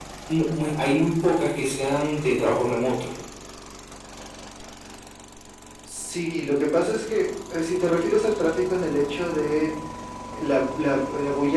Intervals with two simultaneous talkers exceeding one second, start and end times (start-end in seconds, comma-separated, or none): none